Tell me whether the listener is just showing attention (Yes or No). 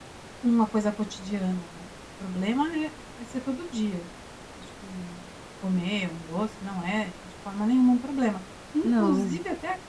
Yes